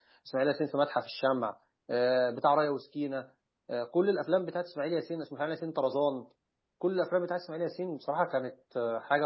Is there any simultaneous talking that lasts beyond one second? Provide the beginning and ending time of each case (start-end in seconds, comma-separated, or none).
none